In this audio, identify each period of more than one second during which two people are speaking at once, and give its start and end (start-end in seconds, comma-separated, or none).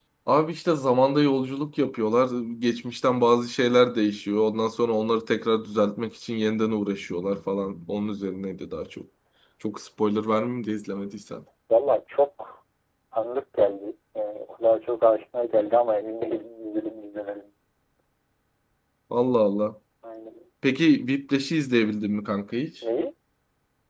none